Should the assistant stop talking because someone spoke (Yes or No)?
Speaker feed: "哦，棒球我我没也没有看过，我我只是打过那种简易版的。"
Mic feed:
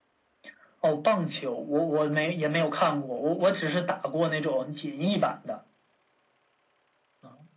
No